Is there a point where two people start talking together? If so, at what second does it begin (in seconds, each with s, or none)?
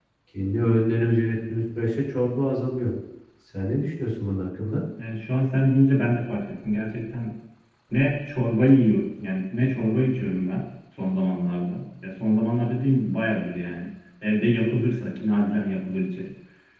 none